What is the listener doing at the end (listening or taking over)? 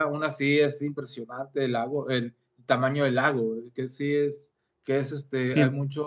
listening